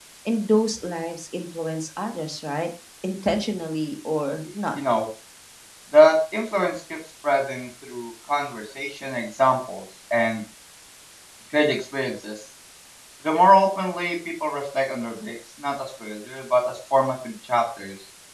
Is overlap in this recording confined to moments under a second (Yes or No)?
Yes